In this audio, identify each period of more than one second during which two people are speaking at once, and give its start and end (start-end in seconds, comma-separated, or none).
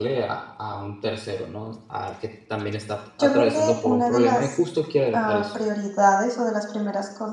3.2-4.5